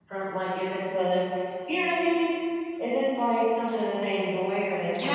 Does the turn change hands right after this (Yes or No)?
Yes